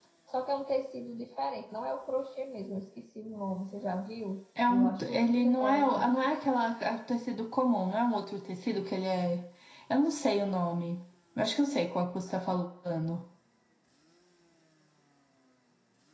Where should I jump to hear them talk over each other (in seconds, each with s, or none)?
4.6 s